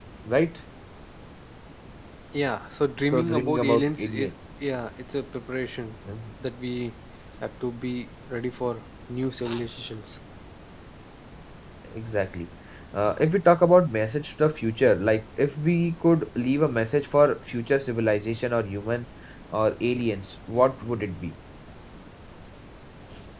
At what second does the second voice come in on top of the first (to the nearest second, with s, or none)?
3 s